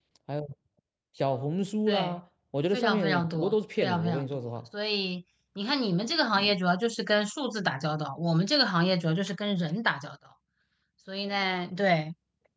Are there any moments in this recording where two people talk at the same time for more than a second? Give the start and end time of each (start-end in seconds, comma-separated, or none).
2.7-4.5